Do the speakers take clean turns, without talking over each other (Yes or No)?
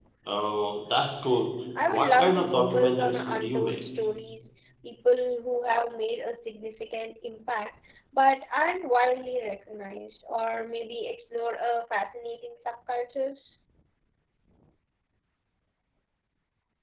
No